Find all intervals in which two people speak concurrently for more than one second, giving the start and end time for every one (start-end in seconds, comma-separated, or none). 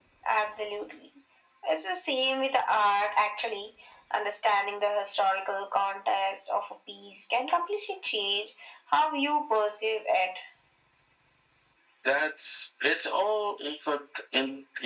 none